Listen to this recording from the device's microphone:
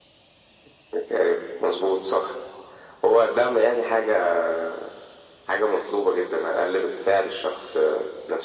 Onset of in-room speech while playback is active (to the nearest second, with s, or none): none